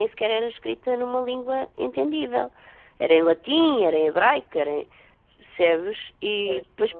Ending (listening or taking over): listening